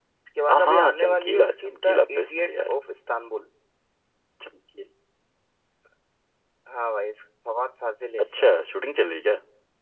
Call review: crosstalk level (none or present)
present